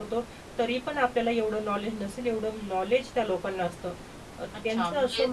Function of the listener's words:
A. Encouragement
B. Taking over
B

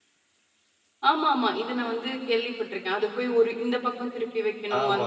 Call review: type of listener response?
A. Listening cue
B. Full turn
B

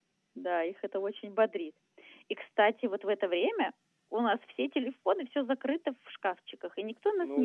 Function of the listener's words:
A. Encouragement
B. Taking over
B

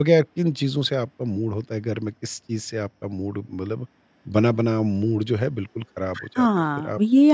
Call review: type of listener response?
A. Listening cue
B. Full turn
B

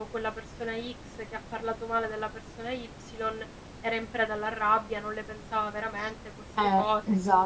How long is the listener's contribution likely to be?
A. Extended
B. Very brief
A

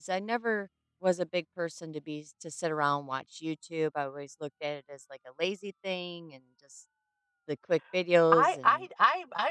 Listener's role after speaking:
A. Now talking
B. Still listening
A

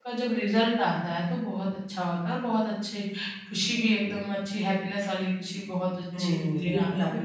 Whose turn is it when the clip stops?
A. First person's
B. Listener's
B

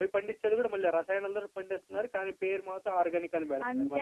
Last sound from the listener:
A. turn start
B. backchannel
A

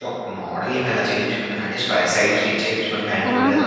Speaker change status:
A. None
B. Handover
A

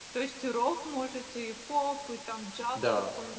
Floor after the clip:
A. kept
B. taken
B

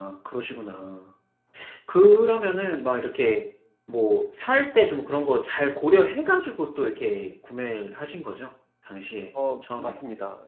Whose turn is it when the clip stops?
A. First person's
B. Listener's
B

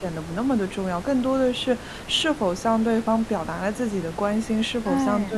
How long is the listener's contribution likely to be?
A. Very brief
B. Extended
A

